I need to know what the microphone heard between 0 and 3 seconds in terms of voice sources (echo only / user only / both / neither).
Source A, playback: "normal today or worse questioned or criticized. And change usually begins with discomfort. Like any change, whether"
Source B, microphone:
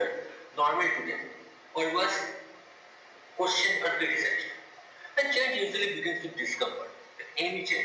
echo only